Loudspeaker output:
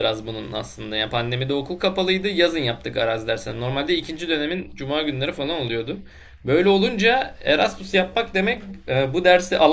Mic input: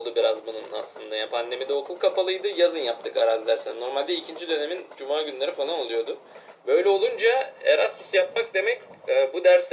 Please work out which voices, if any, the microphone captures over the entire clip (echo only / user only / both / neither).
echo only